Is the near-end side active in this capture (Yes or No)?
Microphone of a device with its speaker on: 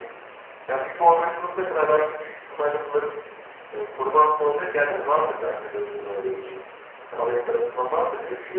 No